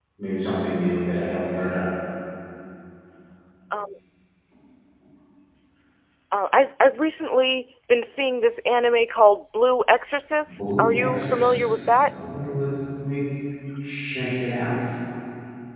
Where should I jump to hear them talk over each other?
10.5 s

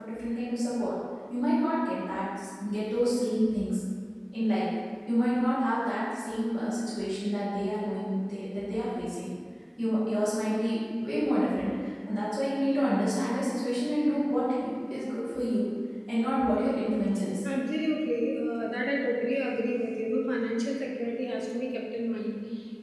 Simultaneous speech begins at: none

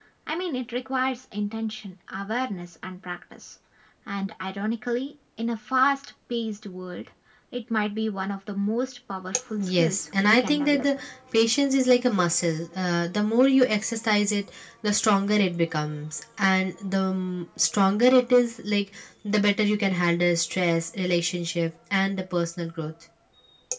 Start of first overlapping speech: 9.6 s

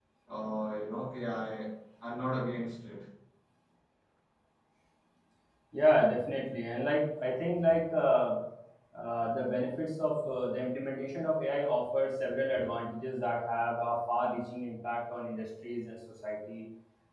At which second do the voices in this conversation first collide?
none

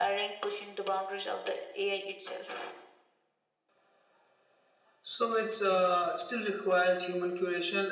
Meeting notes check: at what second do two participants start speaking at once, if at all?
none

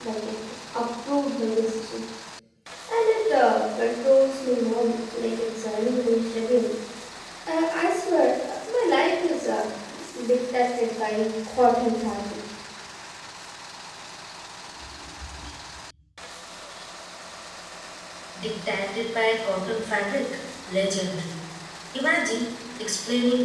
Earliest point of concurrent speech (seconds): none

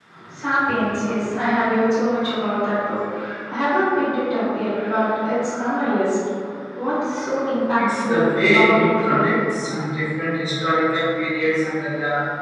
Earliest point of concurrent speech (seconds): 7.8 s

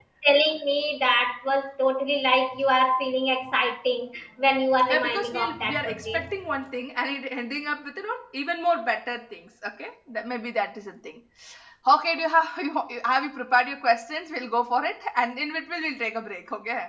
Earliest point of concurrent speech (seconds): 4.9 s

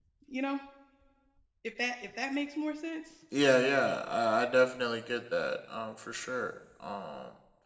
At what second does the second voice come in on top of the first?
none

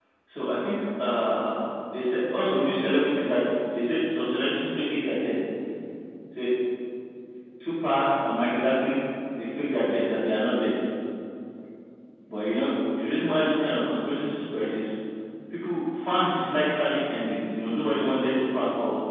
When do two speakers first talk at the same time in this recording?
none

